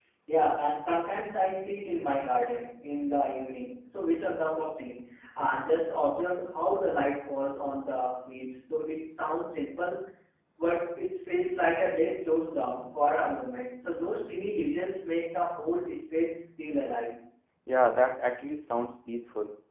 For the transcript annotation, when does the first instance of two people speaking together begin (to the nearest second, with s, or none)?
none